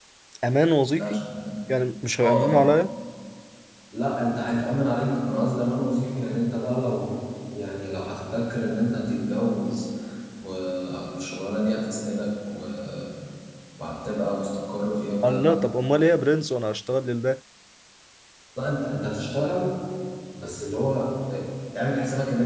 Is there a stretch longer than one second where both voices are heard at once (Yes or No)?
No